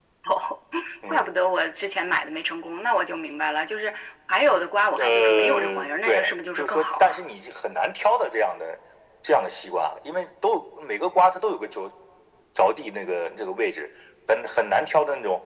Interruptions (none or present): present